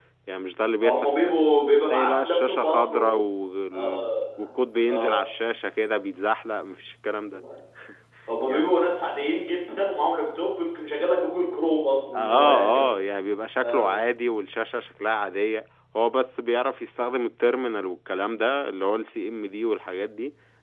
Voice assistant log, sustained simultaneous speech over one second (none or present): present